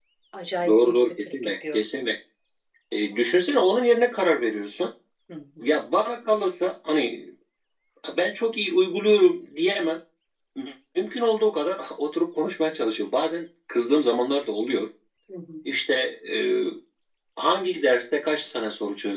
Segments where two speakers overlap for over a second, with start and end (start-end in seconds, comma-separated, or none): 0.6-1.9